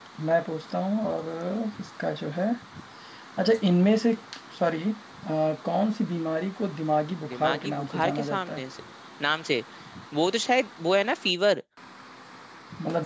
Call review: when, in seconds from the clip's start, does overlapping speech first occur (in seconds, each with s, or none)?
7.3 s